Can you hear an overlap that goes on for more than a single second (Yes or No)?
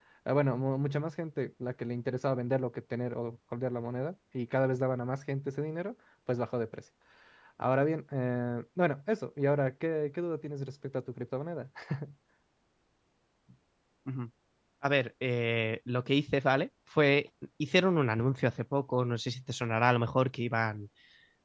No